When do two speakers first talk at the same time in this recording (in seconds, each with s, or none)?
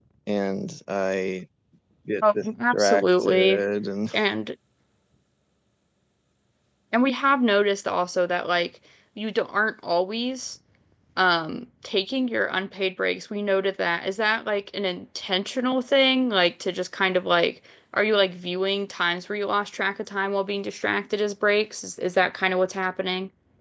2.4 s